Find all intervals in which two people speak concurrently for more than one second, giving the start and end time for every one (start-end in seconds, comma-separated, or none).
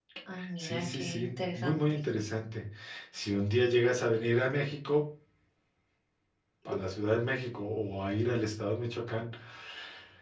0.6-1.8